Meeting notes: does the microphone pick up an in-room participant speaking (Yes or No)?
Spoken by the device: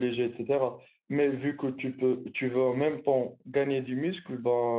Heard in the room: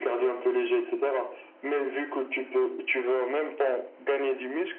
No